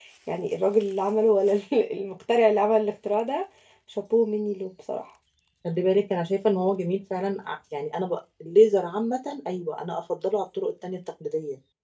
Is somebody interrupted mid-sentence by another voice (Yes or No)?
No